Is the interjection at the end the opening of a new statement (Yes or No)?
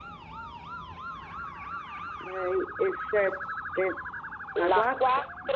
Yes